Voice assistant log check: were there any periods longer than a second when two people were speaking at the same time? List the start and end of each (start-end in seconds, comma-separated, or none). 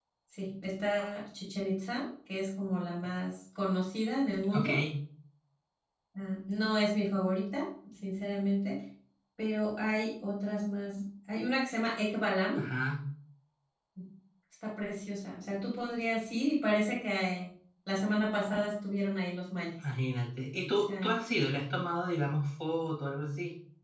none